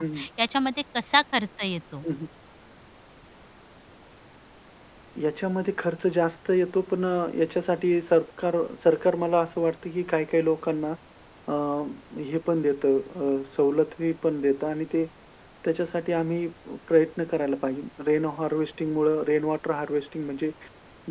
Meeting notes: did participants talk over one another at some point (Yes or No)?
No